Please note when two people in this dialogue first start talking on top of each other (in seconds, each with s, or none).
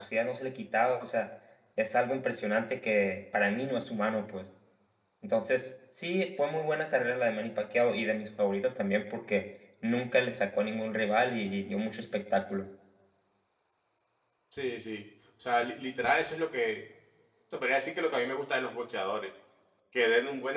none